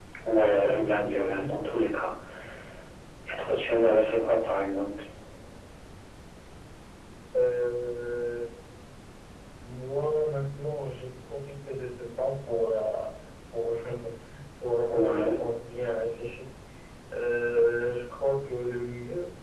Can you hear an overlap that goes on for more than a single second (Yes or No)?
Yes